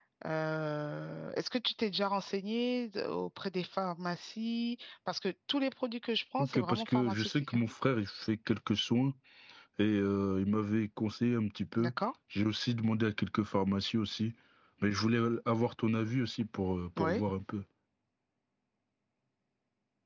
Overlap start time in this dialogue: 6.4 s

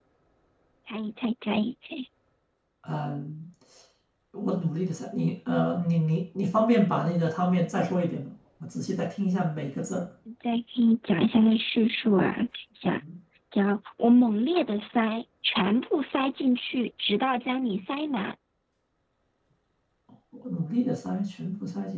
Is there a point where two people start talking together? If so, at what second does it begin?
none

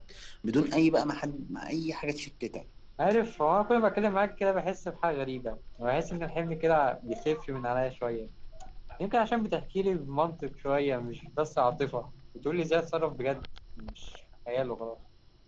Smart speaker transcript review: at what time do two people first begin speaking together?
none

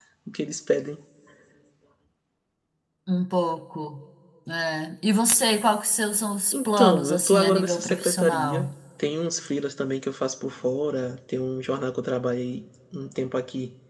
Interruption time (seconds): 6.5 s

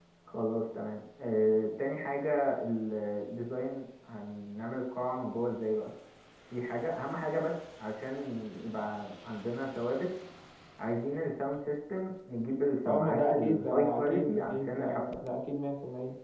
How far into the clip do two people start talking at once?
12.8 s

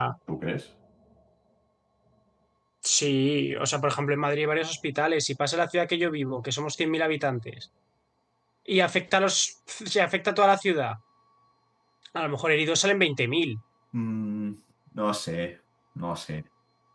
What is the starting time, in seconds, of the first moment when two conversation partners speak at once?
none

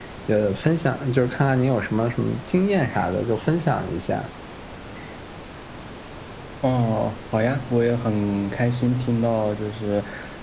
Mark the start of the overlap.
none

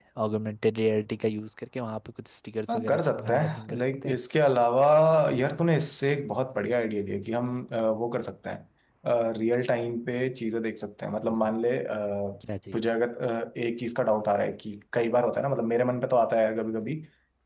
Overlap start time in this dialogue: 2.7 s

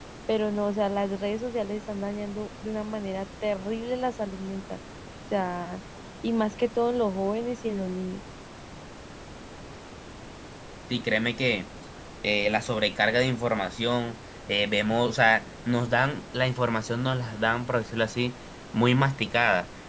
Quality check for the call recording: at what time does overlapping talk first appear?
none

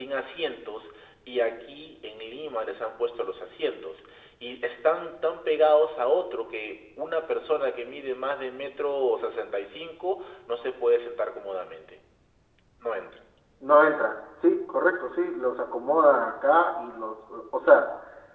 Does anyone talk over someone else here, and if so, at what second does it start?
none

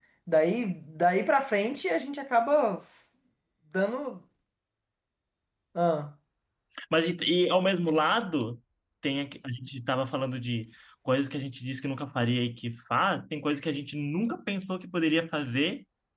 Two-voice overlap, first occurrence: none

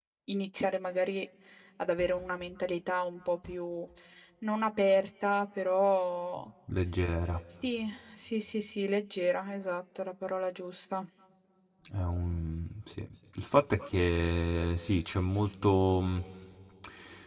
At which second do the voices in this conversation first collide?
none

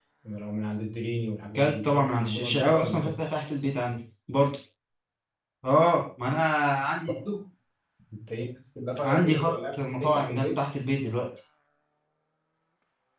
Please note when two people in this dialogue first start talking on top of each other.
1.6 s

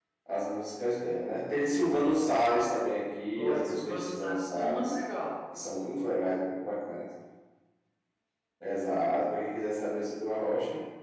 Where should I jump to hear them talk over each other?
3.4 s

